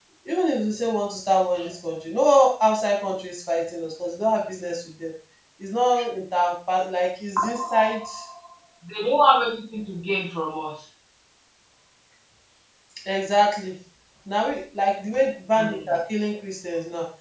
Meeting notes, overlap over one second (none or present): none